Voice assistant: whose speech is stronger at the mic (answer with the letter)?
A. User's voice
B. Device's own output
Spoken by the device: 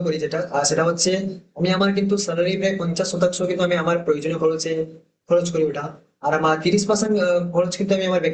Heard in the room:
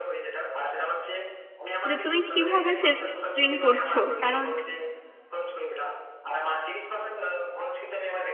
A